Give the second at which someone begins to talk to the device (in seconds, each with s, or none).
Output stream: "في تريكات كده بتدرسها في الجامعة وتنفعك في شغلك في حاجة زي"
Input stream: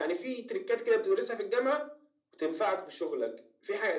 none